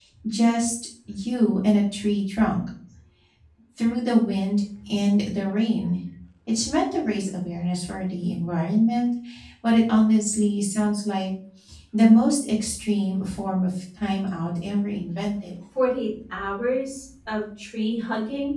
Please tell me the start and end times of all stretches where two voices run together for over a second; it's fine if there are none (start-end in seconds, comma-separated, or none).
none